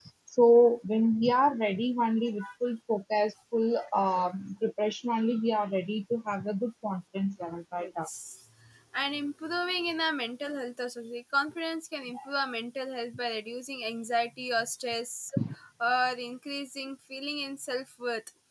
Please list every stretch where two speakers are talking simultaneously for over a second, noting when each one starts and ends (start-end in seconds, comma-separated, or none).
none